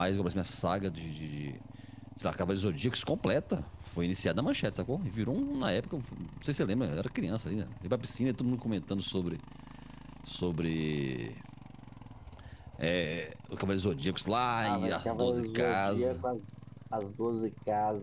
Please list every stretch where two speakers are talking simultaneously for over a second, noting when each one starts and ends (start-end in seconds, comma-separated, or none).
14.6-16.2